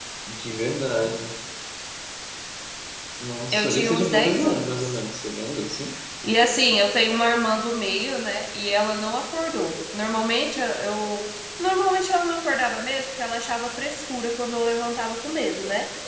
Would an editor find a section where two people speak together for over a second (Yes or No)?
Yes